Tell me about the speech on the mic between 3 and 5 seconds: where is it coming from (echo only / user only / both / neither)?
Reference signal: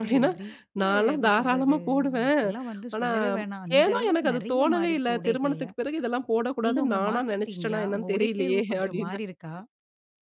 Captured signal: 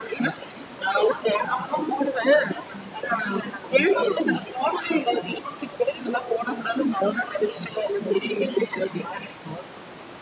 echo only